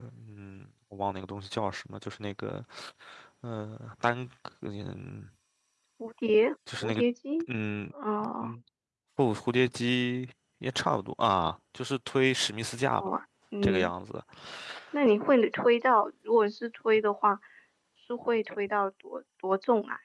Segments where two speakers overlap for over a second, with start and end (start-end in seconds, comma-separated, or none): none